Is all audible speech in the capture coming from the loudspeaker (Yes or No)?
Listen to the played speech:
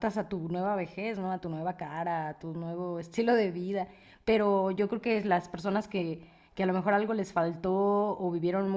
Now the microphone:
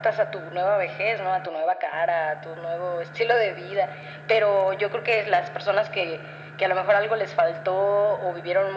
Yes